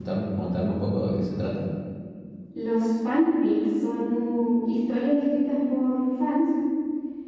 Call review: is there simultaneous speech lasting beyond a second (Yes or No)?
No